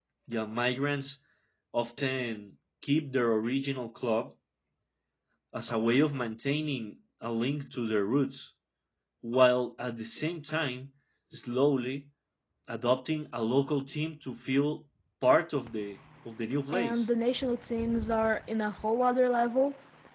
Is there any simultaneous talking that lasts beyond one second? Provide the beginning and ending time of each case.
none

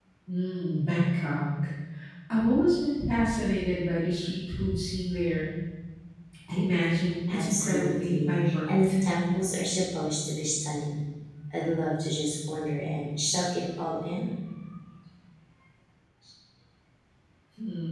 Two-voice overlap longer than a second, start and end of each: 7.3-8.9

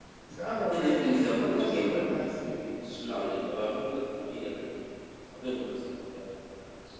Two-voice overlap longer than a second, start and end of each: 0.7-2.1

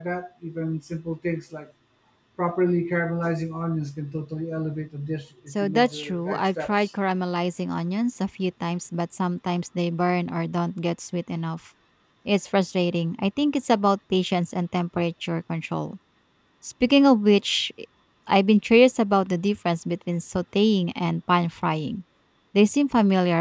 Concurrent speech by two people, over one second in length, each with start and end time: 5.5-6.9

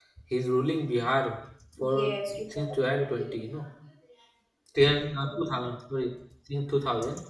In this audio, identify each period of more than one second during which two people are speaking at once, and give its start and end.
1.8-3.4

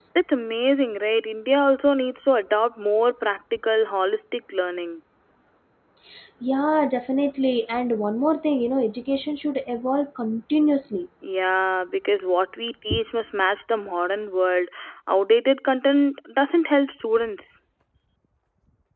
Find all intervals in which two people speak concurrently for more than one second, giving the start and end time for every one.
none

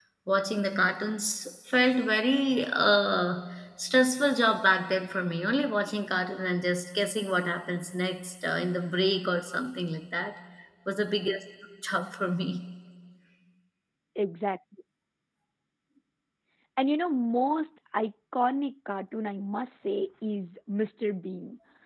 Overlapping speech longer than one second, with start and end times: none

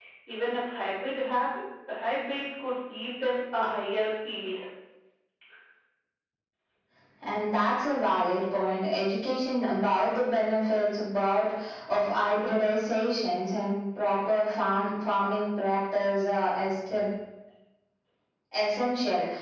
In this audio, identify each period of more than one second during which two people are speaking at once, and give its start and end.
none

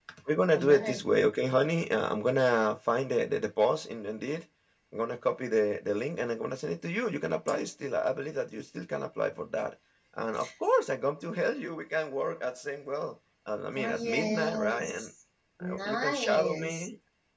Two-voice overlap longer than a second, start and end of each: 13.8-15.1, 15.6-16.9

